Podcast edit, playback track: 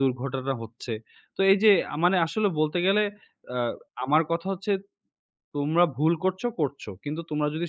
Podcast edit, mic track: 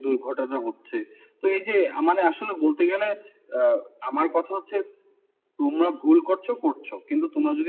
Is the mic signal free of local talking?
Yes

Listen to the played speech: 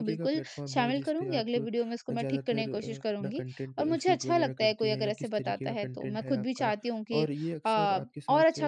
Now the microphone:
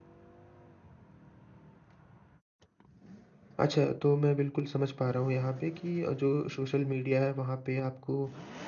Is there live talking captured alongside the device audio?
Yes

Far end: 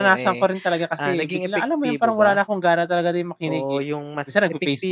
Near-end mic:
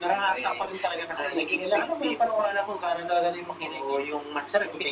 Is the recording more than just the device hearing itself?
No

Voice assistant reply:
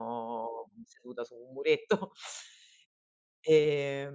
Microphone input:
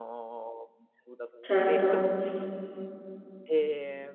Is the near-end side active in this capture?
Yes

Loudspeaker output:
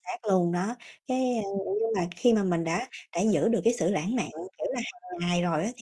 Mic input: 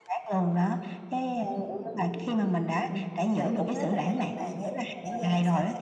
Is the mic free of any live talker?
No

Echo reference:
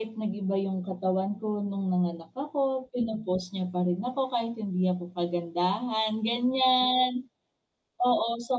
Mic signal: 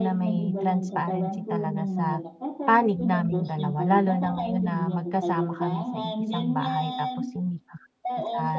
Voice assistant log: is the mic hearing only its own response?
No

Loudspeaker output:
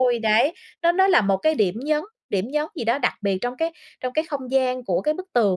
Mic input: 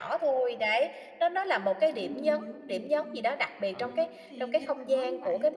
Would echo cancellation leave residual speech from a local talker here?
Yes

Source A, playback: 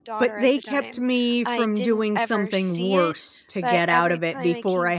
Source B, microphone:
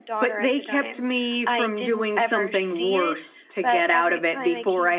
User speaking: No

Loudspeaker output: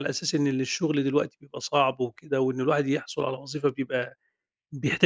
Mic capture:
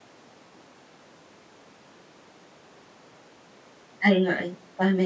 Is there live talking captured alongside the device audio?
Yes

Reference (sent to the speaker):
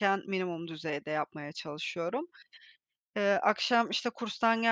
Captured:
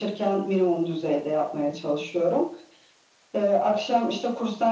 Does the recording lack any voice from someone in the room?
Yes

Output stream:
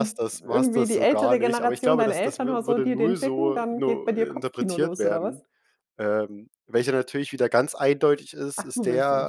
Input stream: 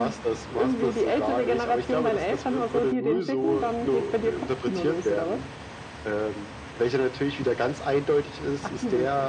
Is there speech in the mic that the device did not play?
No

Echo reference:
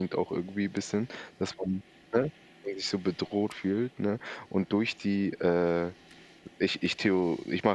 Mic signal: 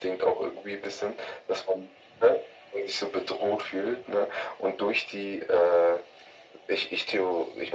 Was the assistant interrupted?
No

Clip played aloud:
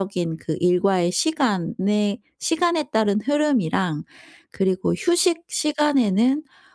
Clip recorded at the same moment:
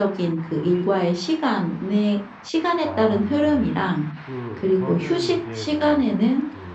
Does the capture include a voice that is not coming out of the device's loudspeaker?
Yes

